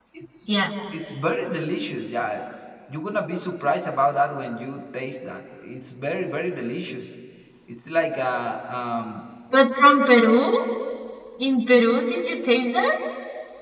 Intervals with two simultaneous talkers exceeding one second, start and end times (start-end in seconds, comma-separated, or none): none